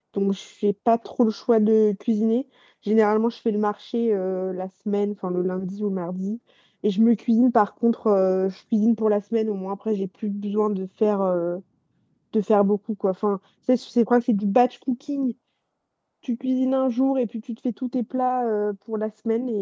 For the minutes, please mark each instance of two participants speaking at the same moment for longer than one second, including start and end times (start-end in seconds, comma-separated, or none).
none